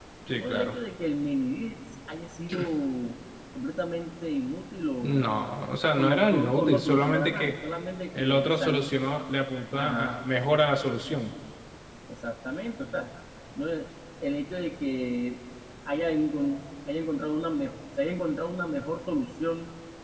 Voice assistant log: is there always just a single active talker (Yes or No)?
No